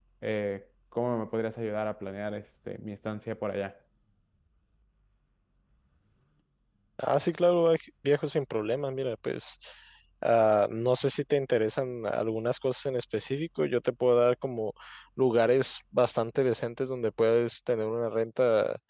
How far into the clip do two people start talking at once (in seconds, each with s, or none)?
none